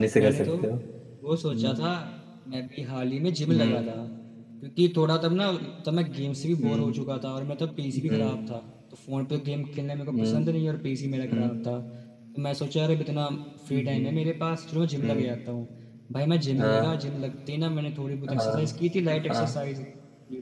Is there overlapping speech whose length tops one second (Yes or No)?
No